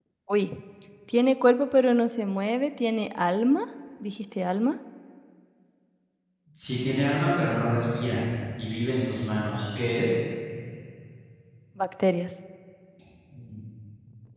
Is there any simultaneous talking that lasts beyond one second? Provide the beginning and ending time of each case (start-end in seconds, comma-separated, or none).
none